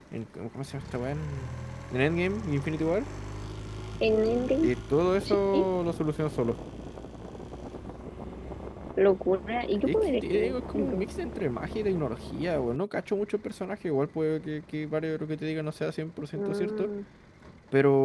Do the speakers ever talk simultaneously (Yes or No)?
Yes